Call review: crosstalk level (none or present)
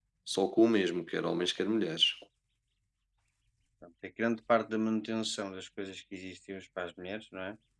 none